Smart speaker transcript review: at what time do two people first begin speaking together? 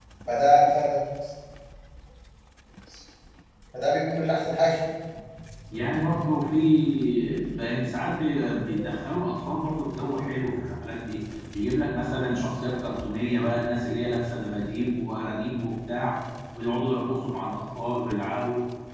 none

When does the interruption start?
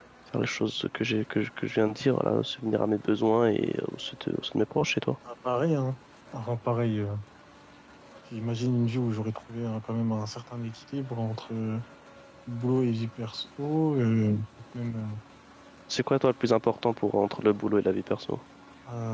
none

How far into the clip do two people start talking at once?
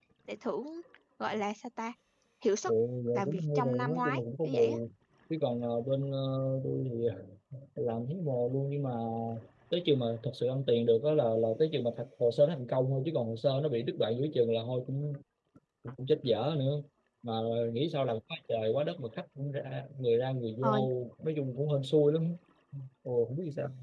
3.1 s

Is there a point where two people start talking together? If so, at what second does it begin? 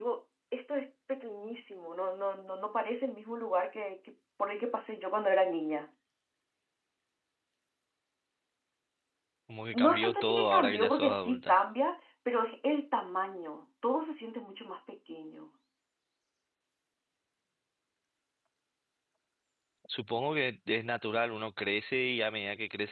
9.8 s

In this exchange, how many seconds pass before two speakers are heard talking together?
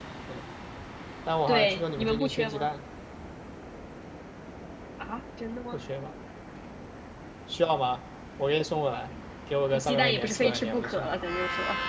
1.5 s

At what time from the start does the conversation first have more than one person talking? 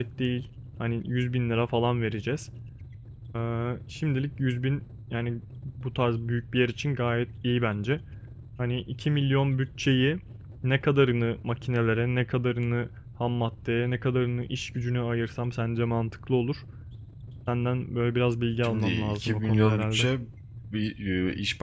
18.6 s

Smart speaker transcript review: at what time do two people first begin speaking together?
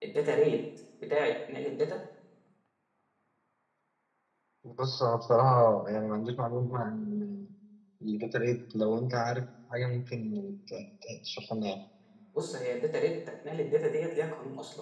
none

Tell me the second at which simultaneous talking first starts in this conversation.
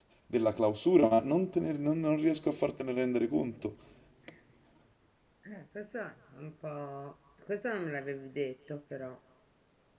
none

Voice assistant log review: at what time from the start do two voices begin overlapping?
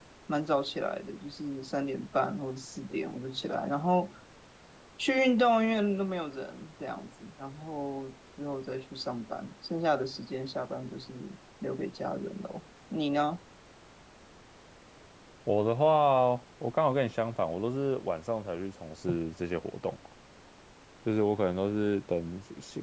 none

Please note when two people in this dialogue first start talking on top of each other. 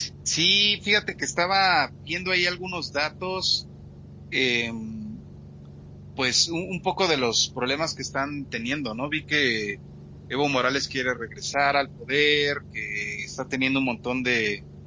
none

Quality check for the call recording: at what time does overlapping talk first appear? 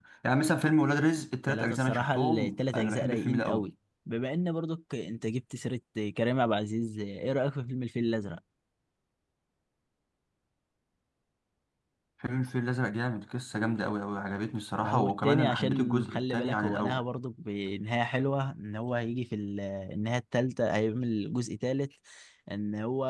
1.5 s

